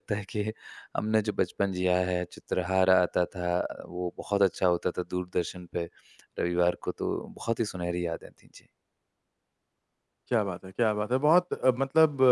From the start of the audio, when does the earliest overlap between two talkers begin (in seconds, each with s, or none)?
none